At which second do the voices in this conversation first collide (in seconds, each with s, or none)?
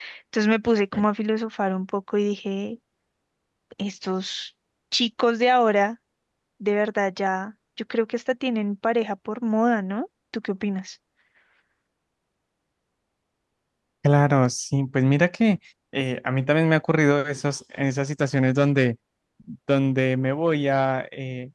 none